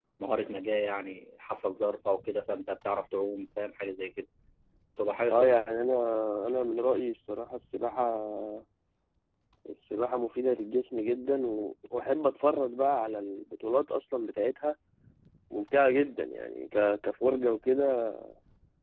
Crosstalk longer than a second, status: none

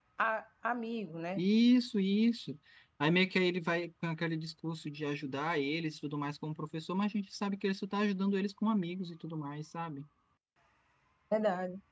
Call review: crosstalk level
none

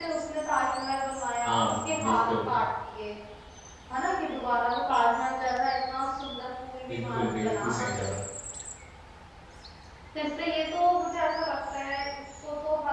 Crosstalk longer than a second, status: present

